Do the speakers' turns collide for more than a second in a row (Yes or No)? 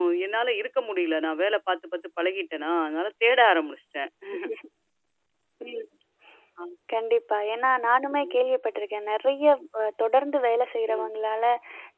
No